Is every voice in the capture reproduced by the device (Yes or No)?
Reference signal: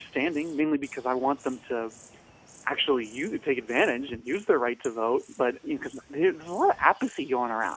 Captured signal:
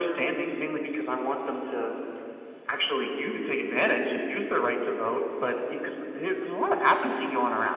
Yes